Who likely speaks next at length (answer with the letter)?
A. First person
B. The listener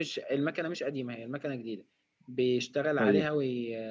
A